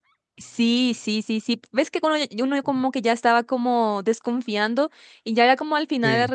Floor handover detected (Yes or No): No